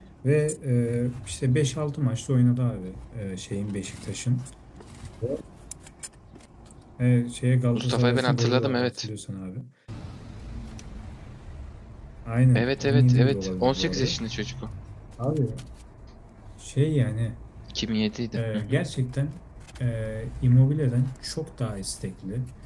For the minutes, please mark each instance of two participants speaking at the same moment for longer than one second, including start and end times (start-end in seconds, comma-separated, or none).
7.8-9.1, 12.6-14.2